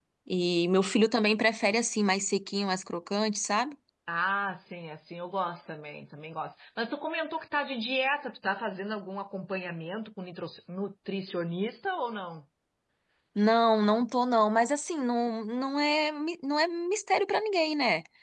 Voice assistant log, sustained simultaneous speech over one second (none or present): none